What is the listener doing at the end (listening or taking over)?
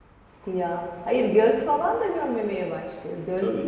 listening